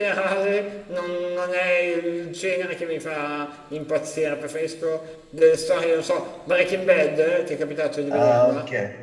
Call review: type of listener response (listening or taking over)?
taking over